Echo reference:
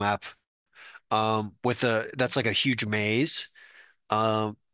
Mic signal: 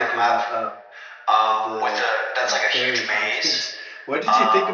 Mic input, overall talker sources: both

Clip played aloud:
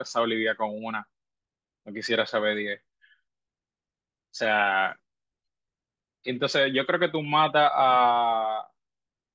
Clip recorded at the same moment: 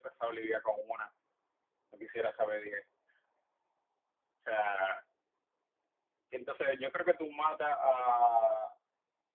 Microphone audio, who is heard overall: echo only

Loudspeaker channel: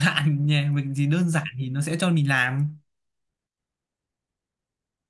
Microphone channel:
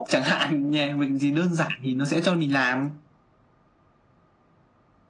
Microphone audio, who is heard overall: echo only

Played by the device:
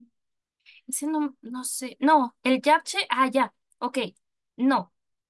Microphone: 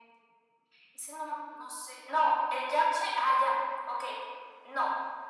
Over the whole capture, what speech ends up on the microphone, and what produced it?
echo only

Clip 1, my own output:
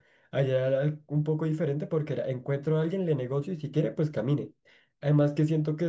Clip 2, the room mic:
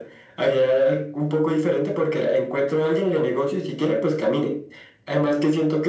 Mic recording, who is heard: echo only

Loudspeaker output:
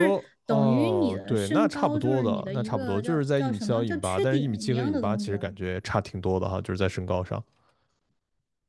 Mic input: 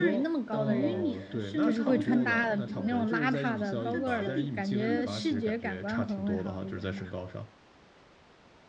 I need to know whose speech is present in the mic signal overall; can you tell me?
both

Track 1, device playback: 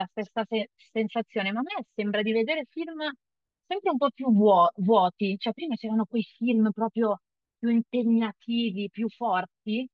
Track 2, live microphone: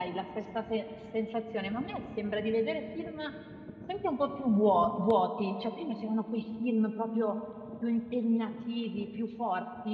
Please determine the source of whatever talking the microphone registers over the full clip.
echo only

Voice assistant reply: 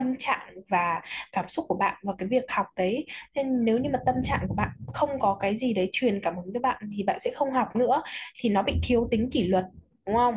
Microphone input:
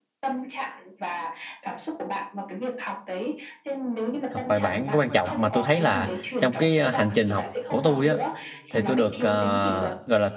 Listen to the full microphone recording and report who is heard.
both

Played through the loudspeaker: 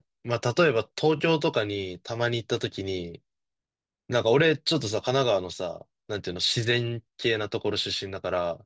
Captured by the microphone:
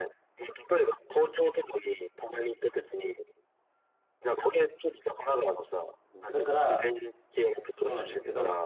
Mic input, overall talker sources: both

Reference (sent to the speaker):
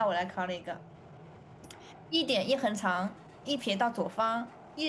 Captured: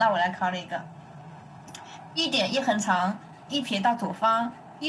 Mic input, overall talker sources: echo only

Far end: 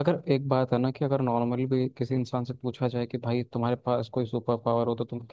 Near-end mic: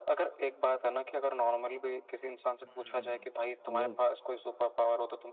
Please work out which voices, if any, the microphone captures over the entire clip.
both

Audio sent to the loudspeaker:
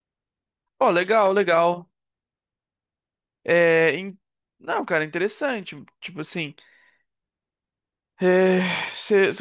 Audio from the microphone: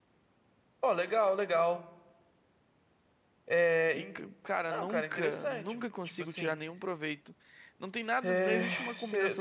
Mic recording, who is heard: both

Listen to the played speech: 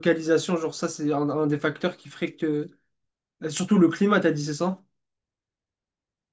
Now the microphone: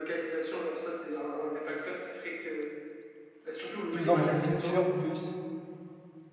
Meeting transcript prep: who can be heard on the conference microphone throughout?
both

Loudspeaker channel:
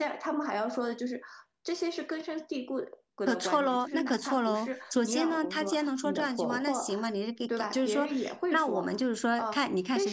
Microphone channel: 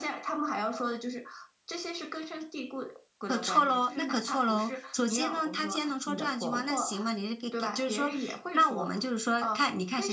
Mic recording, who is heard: echo only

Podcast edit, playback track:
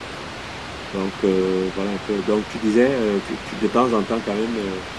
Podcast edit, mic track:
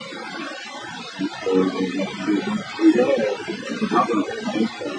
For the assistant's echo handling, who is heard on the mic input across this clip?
echo only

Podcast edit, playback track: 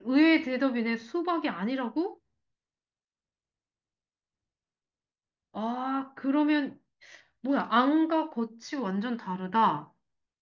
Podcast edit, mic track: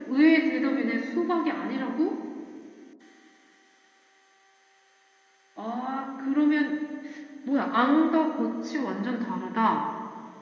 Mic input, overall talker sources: echo only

